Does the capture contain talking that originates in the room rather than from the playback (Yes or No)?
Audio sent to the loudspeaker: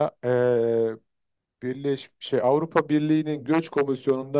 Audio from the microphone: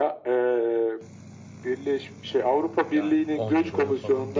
Yes